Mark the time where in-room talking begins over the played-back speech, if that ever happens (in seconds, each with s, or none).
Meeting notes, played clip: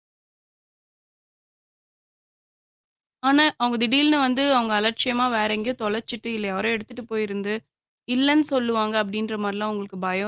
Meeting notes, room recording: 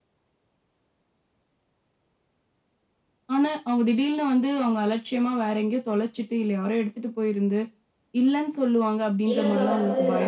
9.3 s